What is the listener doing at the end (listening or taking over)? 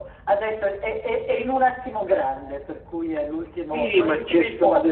taking over